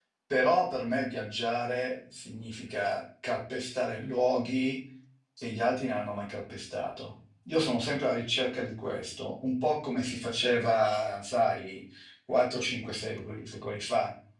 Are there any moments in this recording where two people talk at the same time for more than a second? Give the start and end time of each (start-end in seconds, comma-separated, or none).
none